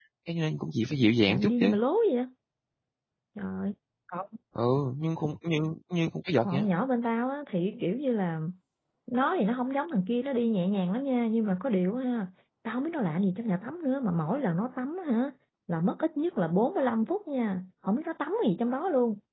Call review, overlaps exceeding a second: none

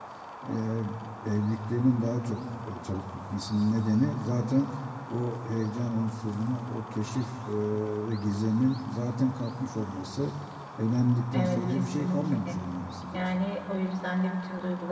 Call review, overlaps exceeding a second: present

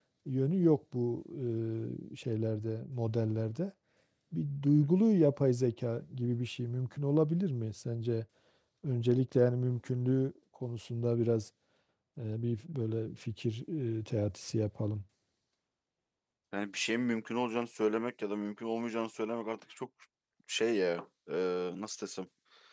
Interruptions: none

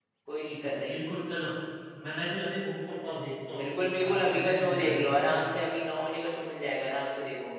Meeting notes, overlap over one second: present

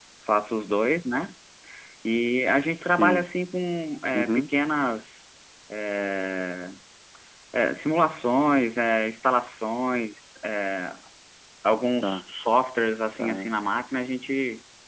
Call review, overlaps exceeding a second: none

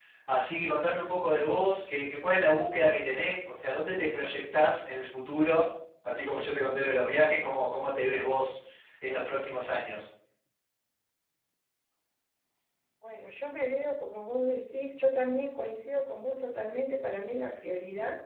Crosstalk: none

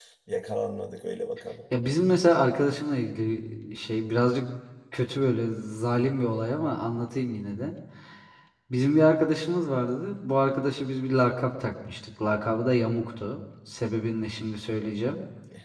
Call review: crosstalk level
none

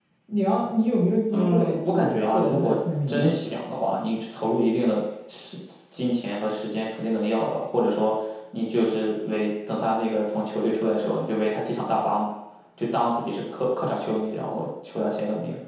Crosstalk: present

